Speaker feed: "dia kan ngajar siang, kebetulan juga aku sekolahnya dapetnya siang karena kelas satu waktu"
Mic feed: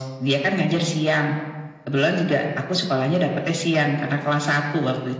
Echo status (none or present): present